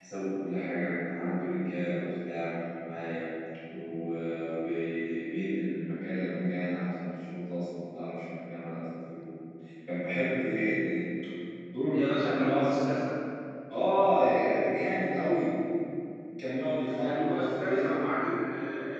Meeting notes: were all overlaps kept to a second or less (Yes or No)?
No